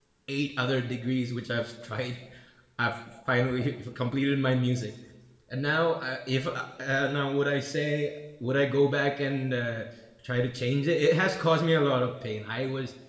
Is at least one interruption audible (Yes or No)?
No